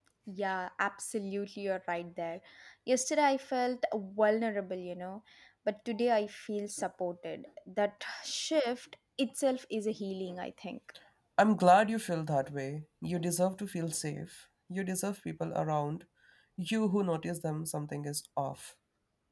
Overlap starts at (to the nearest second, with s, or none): none